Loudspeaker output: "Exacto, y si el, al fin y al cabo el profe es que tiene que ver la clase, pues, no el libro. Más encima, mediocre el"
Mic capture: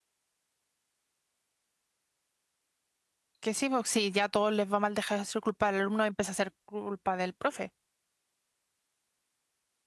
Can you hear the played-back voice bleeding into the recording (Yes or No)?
No